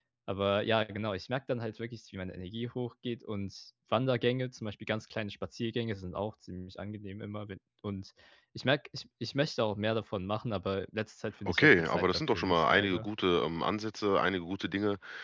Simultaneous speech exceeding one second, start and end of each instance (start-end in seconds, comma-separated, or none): 11.5-13.1